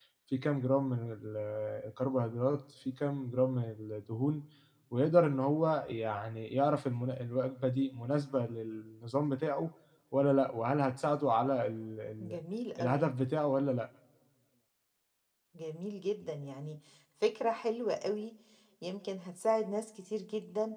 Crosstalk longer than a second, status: none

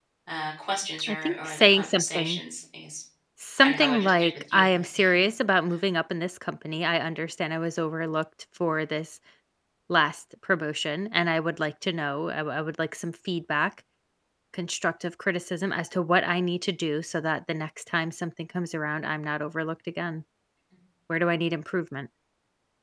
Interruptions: present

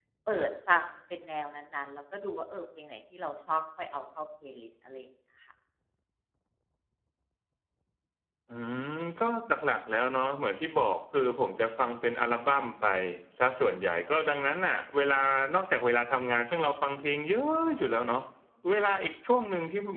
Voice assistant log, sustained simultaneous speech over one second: none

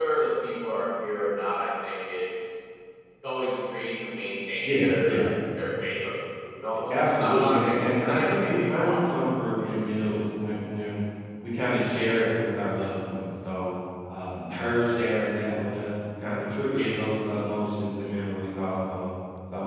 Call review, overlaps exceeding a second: present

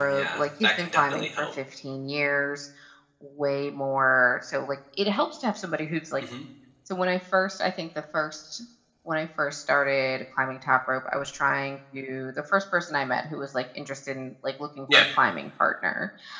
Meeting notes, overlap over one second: present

